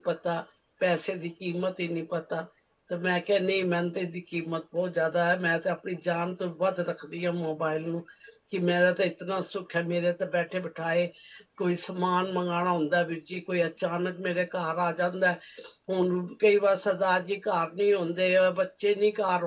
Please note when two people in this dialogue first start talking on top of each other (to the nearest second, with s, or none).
none